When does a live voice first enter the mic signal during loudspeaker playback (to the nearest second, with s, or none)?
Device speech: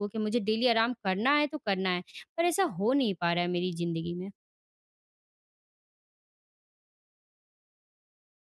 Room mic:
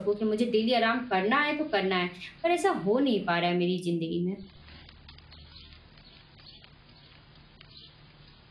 none